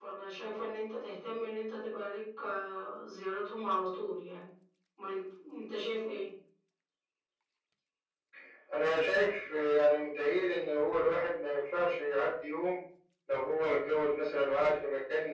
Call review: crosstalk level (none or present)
none